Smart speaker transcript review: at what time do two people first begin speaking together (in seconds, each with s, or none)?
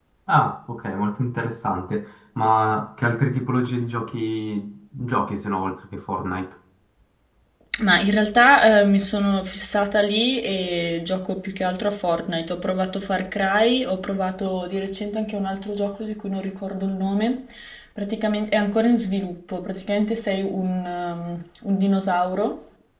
none